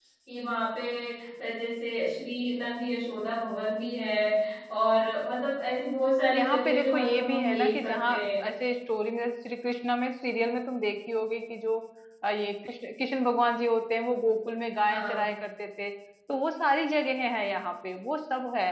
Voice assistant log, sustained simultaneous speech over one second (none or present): present